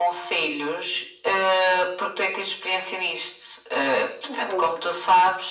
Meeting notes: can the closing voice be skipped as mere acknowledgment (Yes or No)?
Yes